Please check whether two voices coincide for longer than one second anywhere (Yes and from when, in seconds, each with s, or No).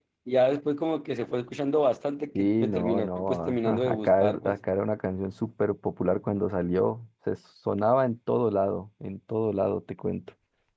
Yes, from 2.4 s